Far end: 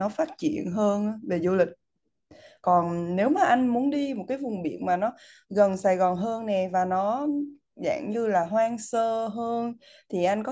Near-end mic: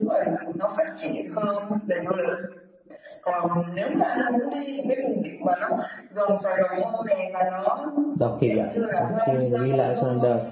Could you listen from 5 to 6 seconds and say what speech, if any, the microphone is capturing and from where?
echo only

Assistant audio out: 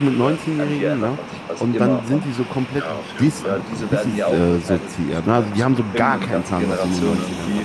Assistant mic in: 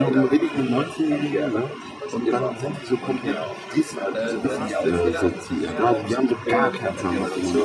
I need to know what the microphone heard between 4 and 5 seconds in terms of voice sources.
both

